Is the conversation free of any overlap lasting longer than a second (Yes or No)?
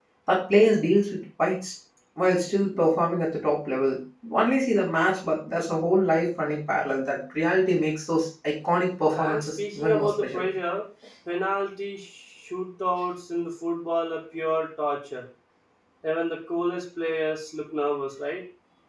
No